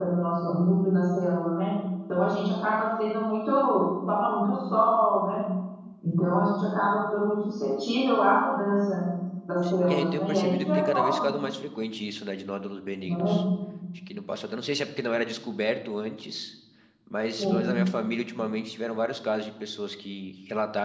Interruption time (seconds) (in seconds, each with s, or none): 9.8 s